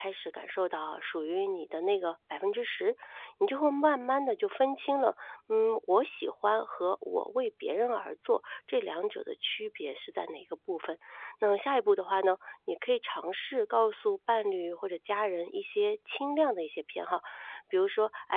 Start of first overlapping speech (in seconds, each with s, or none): none